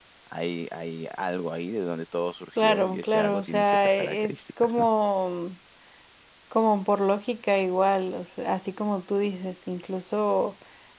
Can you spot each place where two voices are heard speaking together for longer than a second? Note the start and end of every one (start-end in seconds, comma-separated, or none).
2.6-4.9